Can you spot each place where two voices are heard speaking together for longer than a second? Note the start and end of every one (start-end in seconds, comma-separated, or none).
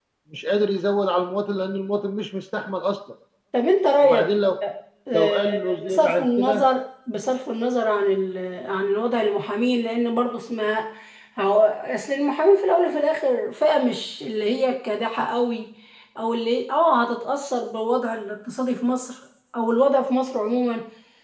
5.1-6.7